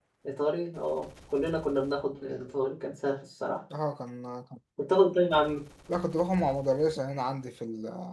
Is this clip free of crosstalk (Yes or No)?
Yes